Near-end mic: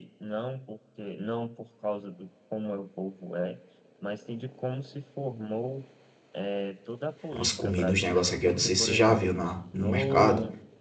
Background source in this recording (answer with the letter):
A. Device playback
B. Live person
A